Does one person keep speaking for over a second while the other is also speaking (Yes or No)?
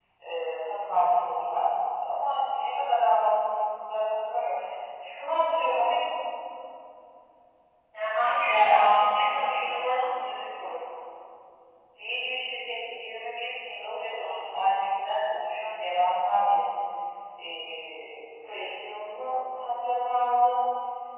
Yes